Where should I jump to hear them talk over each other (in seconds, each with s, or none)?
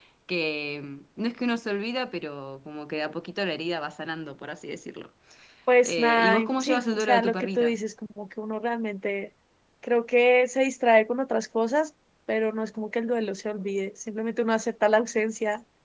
5.8 s